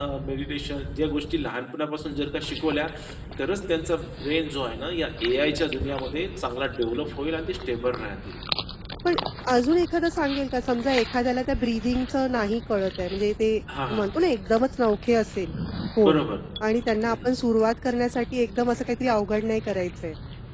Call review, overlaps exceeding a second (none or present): none